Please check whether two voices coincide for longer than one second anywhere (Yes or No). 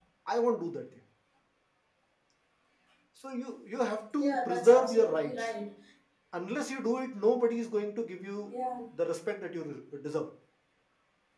Yes